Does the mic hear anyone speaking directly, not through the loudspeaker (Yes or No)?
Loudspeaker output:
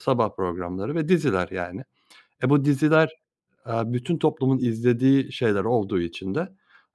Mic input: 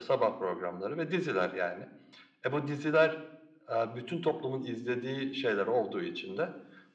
No